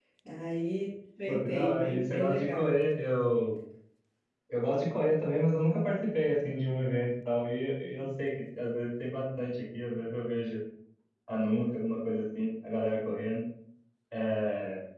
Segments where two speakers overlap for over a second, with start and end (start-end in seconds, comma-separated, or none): 1.3-2.7